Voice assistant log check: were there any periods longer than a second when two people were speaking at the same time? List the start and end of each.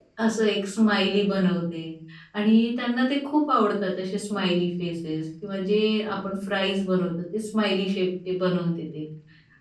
none

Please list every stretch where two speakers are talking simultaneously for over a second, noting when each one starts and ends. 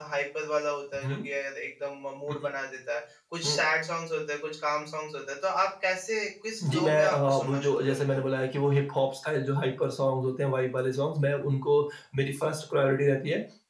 6.7-8.0

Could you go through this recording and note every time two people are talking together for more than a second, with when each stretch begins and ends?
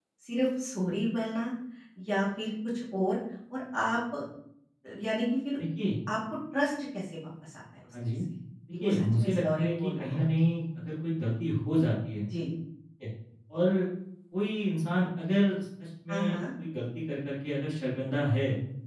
8.8-10.2

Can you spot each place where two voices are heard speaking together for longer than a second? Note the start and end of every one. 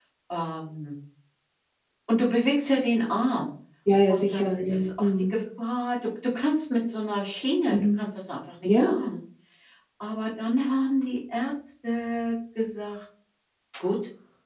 4.1-5.3

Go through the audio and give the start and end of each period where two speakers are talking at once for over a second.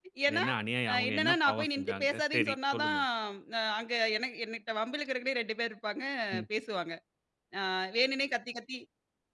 0.9-3.0

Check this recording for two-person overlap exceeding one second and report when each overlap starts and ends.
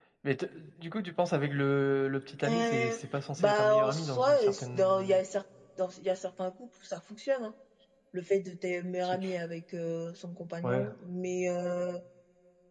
3.5-5.2

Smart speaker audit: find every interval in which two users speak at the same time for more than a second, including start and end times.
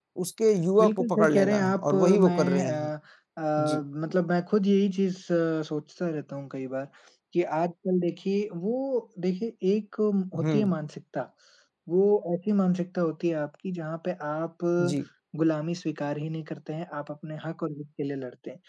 0.8-2.9

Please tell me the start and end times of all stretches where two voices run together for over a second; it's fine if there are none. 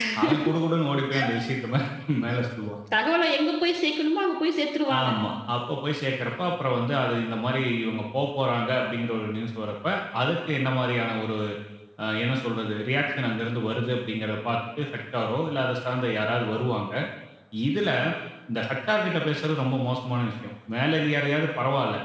none

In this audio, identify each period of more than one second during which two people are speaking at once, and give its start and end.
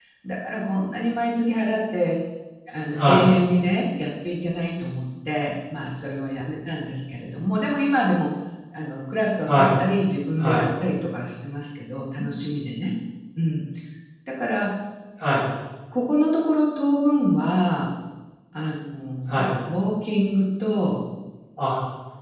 none

